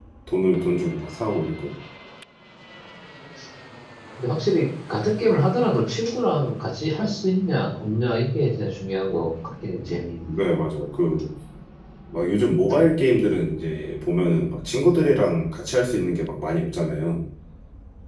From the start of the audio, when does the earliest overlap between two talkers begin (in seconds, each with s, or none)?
none